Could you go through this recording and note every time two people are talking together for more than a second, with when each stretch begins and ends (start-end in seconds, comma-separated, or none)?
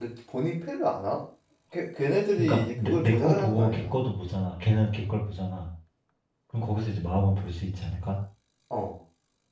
2.4-4.0